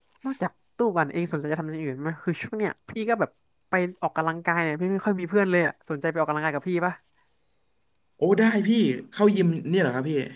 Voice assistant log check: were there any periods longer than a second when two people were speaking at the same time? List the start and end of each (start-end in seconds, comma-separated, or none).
none